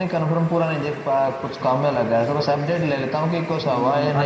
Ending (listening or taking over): taking over